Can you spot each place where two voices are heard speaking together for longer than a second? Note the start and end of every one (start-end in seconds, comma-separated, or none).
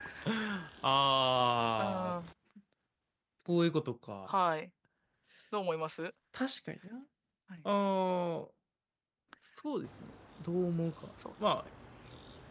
none